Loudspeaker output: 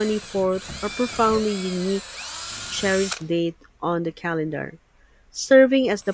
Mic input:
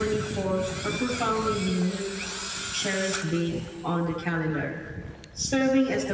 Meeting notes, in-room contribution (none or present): none